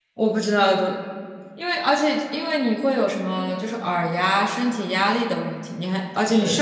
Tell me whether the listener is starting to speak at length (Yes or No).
No